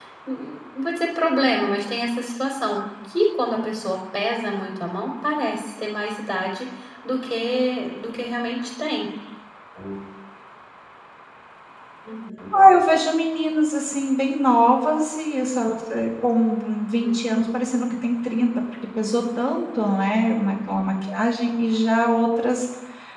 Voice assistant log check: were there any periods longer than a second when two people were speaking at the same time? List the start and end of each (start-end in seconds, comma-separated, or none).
none